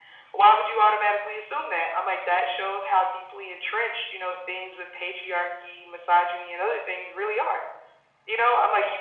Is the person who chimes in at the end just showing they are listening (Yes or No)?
Yes